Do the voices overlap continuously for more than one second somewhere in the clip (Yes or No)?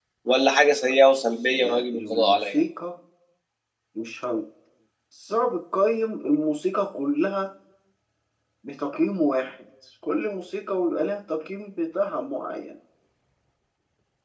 Yes